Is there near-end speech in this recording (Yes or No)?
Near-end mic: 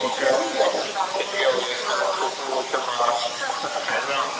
No